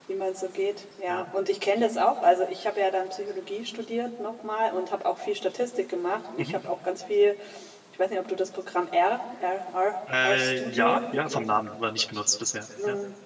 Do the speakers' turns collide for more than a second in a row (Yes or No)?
Yes